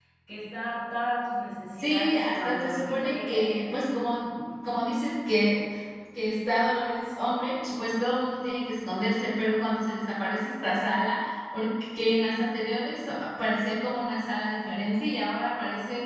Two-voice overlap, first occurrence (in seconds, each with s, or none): 1.8 s